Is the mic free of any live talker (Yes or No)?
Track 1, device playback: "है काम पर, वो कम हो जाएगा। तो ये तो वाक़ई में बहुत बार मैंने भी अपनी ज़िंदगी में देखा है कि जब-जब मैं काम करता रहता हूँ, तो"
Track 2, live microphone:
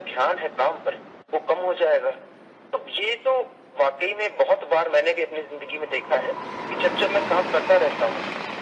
Yes